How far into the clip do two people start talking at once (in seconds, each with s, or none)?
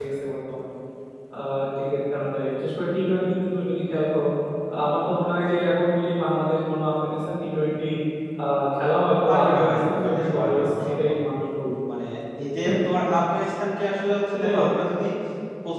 9.3 s